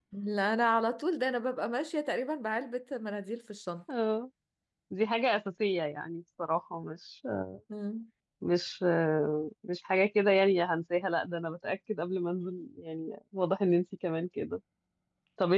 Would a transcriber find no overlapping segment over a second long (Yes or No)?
Yes